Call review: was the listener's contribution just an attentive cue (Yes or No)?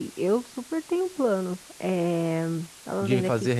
No